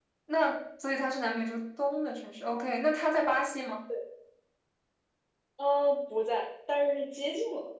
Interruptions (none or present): none